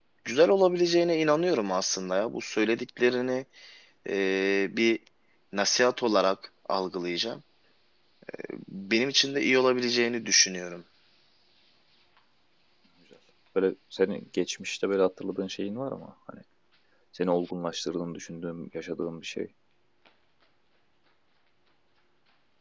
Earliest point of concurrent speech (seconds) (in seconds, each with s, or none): none